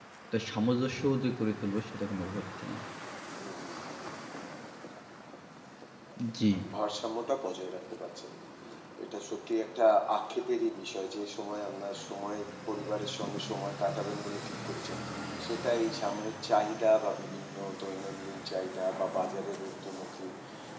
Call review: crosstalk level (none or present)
none